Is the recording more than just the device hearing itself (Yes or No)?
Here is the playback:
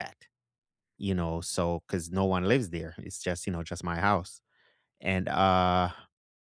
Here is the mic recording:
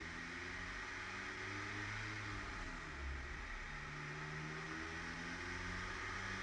No